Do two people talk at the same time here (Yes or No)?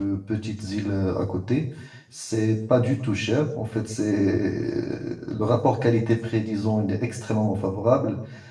No